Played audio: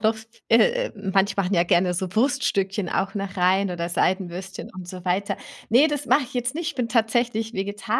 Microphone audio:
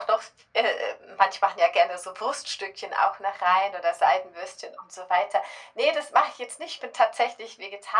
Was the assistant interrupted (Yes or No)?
No